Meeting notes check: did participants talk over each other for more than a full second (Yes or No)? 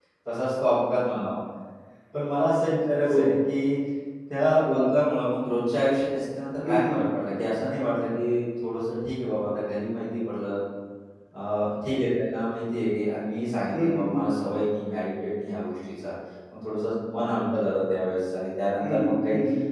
No